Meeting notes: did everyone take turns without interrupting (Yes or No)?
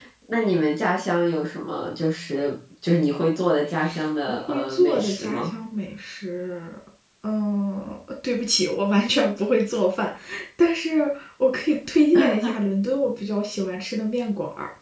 No